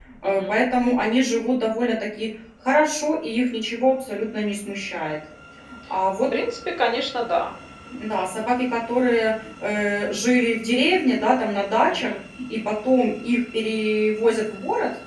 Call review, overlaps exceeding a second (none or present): none